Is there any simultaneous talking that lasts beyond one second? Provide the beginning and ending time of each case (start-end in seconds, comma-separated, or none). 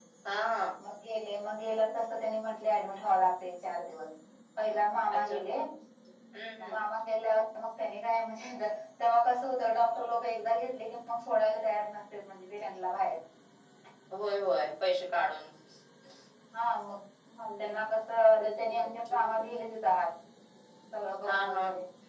18.3-19.7